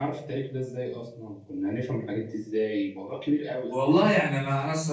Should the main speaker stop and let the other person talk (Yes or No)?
Yes